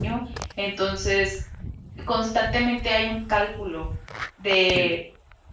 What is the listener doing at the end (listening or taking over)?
listening